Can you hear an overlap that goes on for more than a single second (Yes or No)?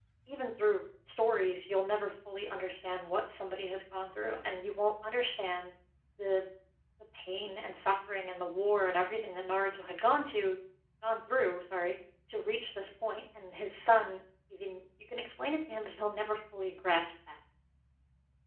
No